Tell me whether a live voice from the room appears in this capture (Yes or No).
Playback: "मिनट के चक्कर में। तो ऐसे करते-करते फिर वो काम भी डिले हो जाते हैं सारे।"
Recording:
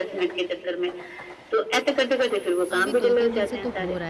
Yes